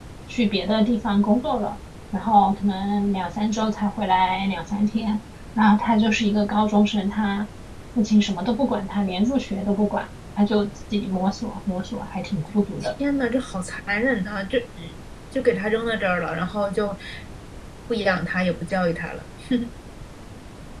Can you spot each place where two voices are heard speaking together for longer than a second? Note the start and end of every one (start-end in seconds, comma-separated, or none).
none